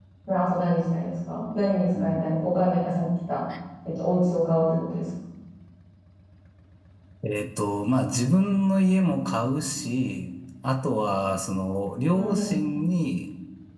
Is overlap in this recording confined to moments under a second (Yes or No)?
Yes